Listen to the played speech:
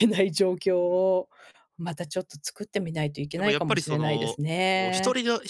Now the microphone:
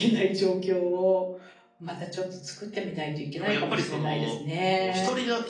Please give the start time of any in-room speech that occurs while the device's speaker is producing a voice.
none

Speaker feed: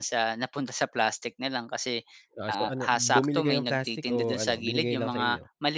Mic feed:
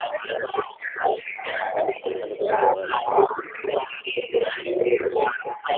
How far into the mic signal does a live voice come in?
1.8 s

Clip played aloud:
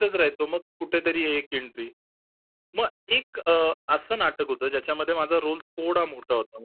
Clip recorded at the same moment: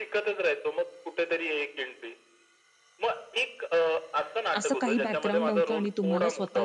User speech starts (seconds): 4.6 s

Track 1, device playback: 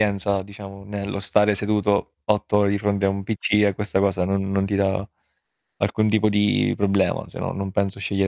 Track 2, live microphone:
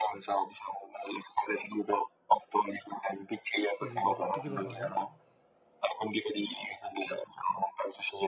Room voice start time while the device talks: 3.7 s

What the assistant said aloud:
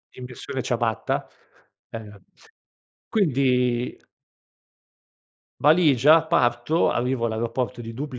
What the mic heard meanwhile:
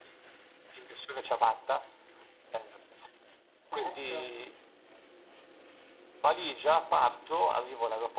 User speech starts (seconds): 3.6 s

